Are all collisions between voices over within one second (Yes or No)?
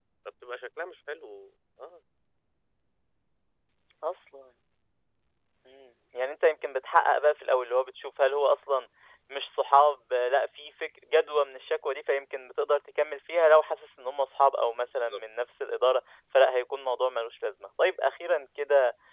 Yes